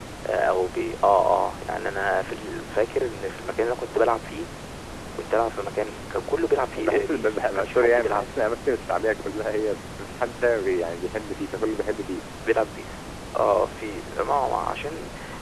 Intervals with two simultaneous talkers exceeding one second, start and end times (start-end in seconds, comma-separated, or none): 6.8-8.3